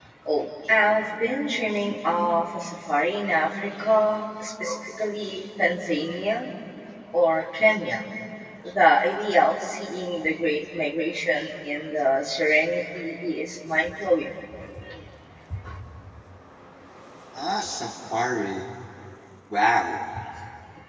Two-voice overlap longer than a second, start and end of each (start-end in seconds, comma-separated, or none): none